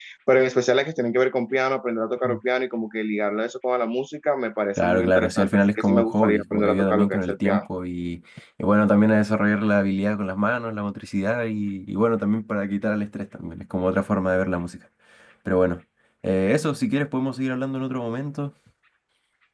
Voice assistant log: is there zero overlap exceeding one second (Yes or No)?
No